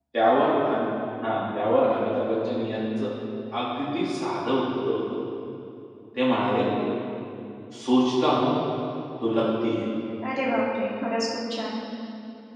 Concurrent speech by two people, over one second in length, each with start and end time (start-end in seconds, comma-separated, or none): none